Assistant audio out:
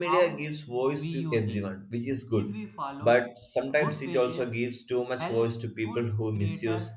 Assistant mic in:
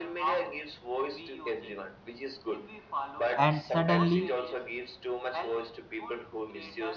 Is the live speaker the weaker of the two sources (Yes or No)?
No